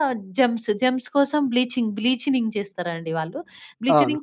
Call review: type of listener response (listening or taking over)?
listening